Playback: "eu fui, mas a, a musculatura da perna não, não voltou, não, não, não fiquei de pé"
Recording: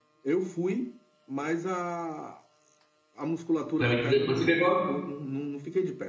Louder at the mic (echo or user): user